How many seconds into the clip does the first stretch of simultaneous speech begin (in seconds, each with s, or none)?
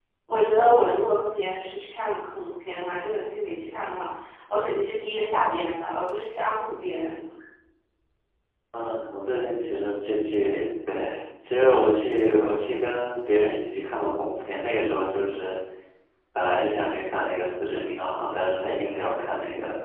none